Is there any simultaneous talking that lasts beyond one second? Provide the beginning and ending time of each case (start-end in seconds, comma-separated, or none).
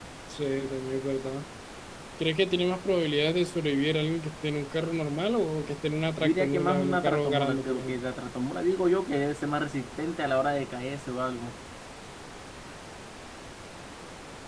6.2-8.0